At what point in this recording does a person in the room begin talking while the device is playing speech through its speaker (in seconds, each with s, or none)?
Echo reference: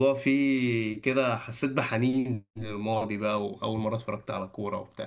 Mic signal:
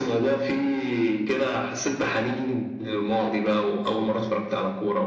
none